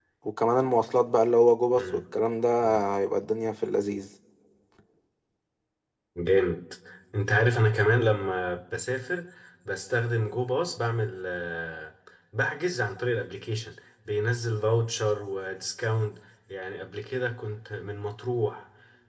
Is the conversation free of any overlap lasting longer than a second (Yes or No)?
Yes